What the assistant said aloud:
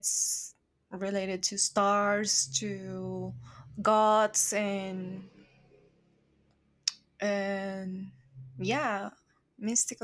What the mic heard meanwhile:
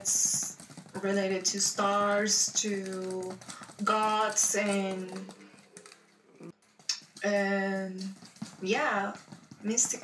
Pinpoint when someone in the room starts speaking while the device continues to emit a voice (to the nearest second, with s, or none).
none